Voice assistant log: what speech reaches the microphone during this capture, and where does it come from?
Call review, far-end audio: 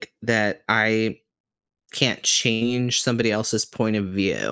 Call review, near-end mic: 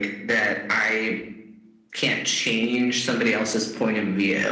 echo only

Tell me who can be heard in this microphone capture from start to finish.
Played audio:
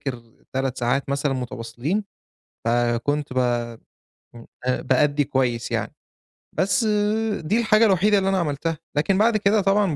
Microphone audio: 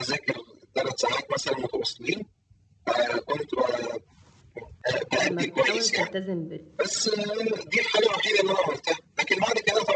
both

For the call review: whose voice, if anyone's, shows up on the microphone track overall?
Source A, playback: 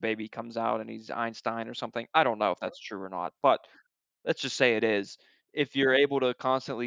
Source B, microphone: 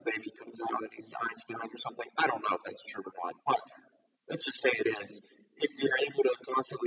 echo only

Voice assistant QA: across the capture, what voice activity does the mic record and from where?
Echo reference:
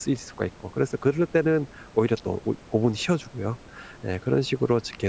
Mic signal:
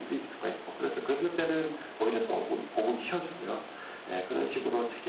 echo only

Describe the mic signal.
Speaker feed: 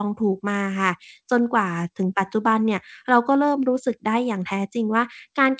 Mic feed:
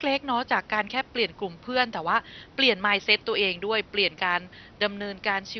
user only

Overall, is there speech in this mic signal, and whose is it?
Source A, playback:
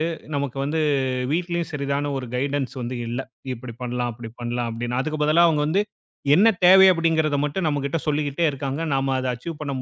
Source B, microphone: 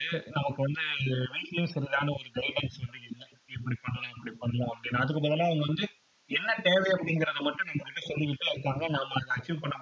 echo only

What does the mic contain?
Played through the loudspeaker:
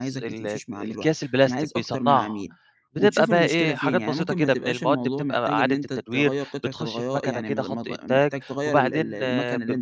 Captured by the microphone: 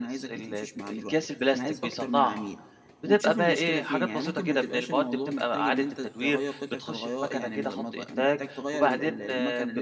echo only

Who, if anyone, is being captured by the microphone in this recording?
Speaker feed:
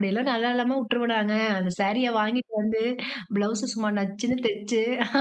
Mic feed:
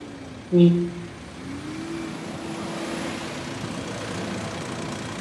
user only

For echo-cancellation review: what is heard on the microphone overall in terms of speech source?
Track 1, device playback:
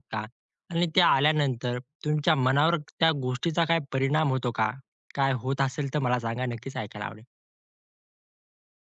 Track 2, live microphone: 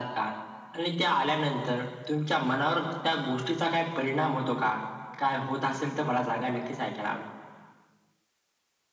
echo only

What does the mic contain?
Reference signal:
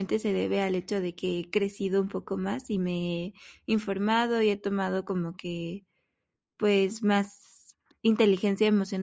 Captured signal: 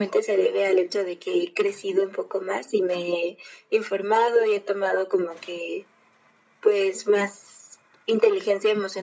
echo only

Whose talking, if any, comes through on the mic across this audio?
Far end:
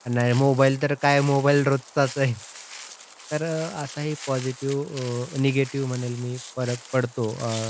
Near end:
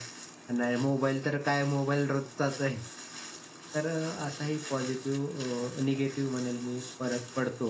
echo only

